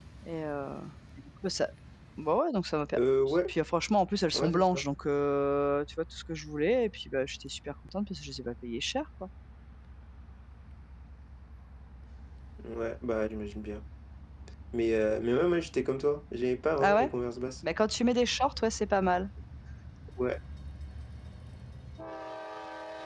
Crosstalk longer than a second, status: none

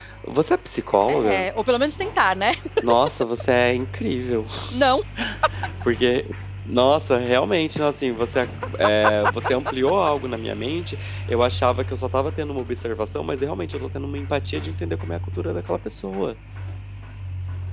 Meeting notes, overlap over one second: none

